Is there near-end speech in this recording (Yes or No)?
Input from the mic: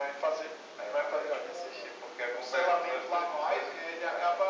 No